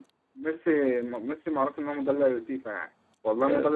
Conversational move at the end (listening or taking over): listening